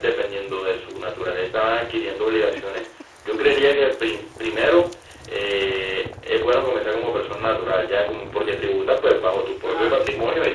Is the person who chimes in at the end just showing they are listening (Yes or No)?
Yes